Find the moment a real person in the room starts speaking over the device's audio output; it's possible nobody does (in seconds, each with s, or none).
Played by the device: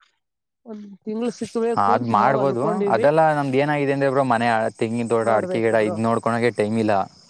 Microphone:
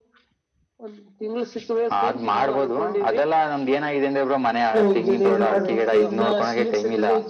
4.7 s